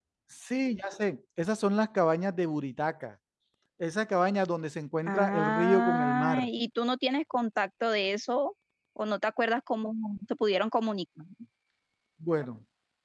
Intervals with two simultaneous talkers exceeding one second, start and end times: 5.1-6.5

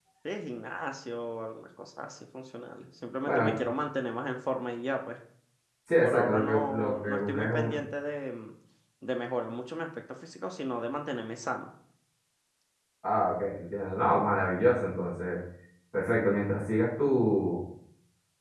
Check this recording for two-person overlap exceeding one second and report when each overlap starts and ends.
6.0-7.7

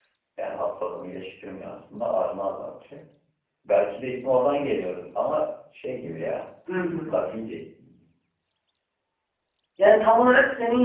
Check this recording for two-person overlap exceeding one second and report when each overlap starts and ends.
none

